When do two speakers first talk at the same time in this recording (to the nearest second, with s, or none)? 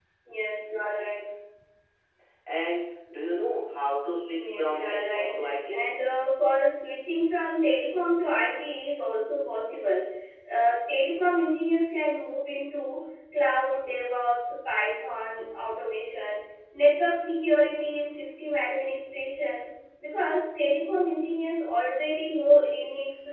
4 s